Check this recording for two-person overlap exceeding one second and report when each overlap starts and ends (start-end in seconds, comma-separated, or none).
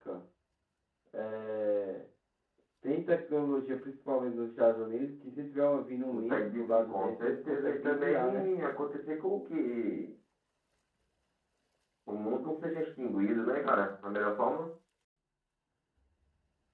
6.1-8.4